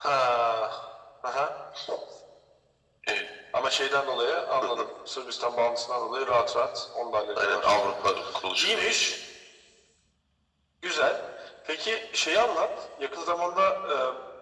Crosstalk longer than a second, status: none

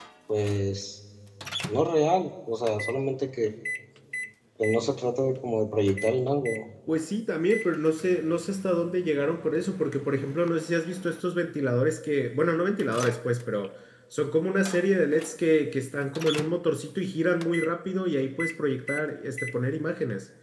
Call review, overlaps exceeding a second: none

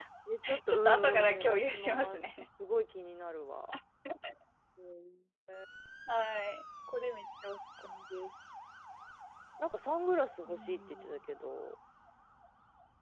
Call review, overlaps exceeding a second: present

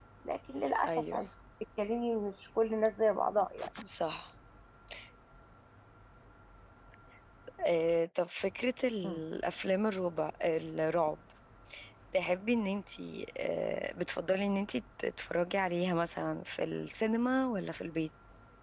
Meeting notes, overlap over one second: none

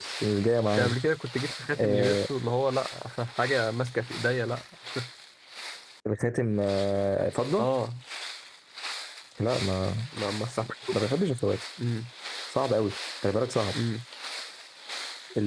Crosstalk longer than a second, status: none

